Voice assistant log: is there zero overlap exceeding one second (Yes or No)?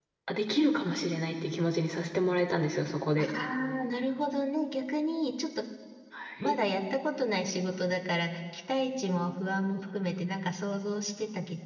Yes